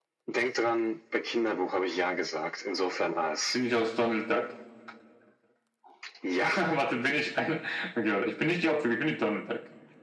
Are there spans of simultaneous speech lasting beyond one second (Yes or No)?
No